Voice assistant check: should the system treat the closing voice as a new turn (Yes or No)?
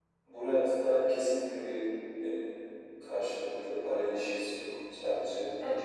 Yes